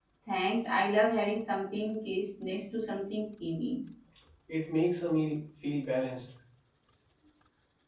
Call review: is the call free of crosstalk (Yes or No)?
Yes